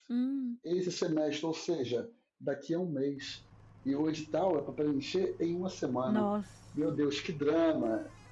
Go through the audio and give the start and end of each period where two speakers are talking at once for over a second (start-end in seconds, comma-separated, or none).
none